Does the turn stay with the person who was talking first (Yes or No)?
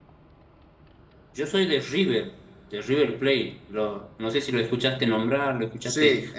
No